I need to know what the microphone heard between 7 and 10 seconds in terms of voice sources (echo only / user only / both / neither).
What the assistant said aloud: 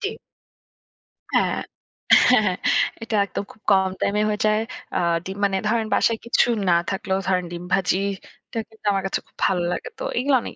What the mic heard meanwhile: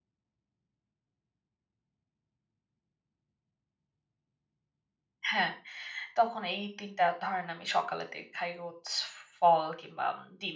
user only